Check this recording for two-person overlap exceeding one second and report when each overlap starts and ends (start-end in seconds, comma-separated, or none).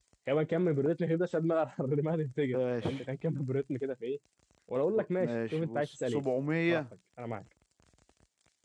4.9-6.2